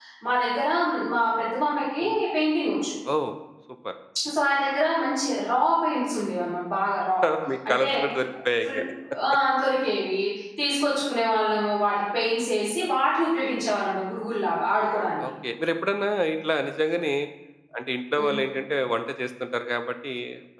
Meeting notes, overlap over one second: none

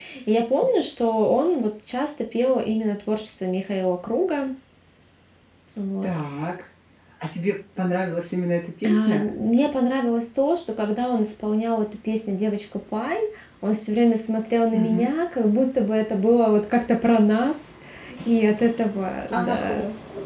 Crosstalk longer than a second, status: none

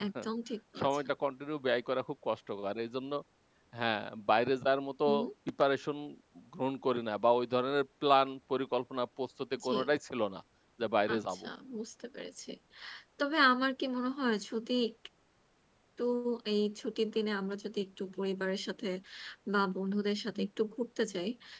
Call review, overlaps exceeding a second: none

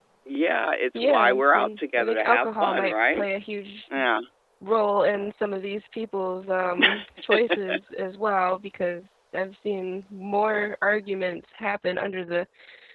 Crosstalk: present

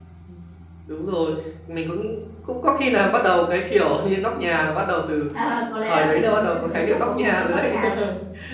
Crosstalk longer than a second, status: present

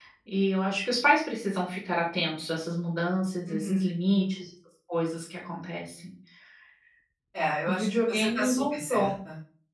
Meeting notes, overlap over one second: present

